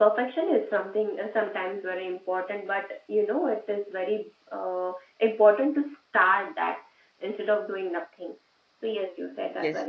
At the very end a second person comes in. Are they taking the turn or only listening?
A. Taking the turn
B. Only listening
A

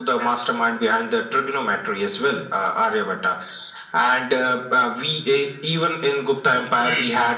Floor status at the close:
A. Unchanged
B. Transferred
A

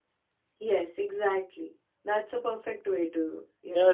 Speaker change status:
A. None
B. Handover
B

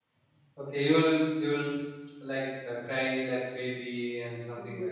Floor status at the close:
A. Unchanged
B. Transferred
B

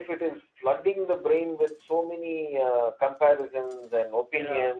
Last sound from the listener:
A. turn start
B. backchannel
B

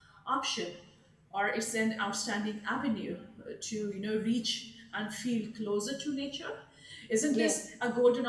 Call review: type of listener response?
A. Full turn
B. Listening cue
B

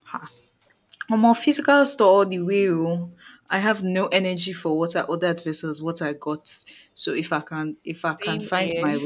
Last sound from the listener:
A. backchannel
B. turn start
A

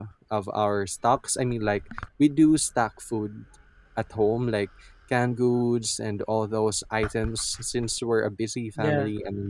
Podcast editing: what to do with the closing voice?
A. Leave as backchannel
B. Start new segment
A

